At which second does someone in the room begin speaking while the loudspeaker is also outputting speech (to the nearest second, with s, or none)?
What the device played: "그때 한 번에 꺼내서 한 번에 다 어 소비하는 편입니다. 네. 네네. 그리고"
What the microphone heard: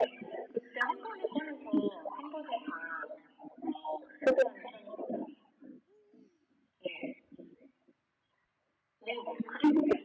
none